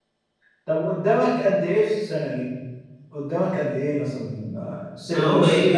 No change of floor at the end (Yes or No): No